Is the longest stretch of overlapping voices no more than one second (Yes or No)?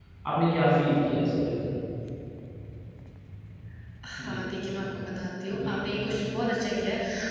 Yes